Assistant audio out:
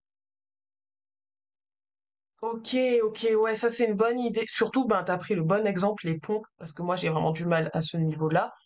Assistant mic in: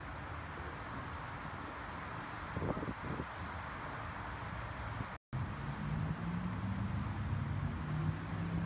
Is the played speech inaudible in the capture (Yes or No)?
Yes